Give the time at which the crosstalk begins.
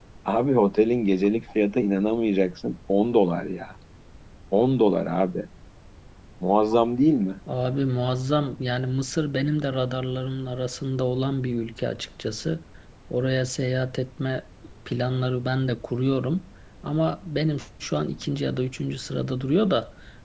none

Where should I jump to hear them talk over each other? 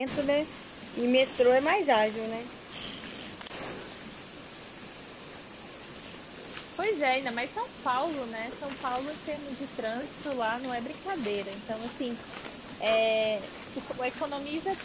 none

